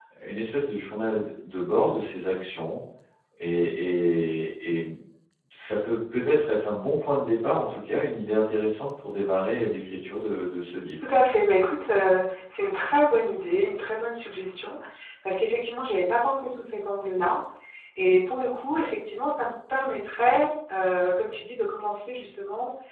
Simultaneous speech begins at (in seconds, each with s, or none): none